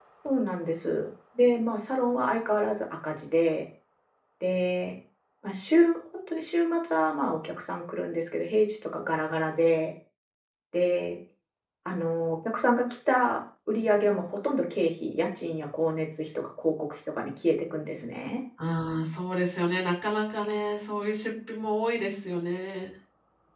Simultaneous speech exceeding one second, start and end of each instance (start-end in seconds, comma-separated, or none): none